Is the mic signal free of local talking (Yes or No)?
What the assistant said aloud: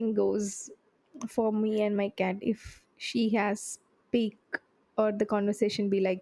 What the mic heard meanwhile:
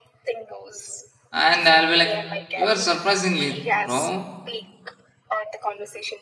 No